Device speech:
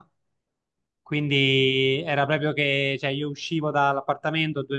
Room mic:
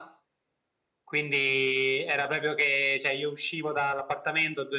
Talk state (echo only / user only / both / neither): echo only